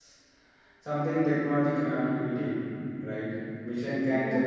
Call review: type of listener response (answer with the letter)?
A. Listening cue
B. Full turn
A